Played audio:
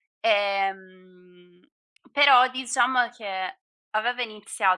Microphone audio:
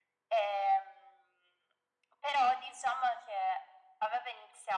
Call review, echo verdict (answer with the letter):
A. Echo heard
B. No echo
A